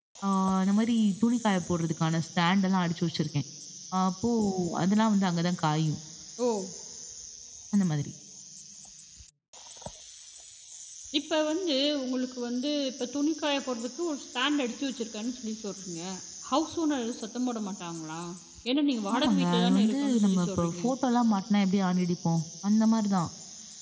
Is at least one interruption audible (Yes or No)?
Yes